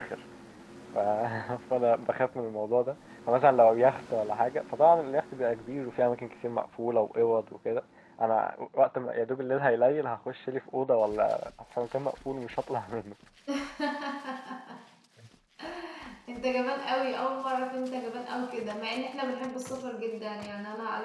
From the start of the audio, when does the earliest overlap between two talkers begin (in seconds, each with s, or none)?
none